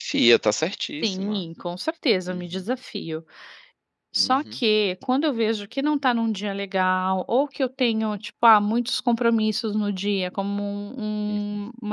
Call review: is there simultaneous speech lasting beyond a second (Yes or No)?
No